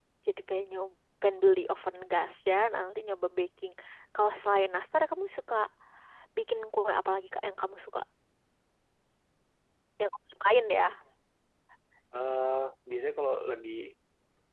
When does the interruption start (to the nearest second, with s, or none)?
none